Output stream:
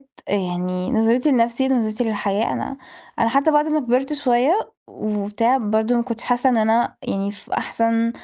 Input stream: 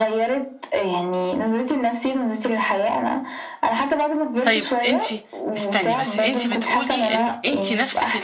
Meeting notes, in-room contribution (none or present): present